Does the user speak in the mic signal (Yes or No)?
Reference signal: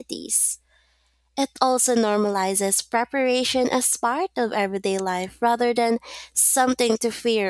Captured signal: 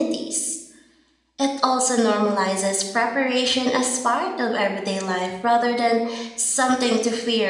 No